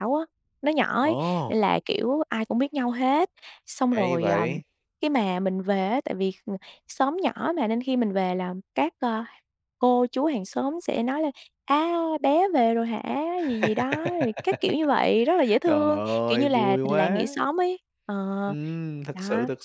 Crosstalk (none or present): present